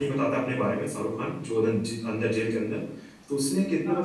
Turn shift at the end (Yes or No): No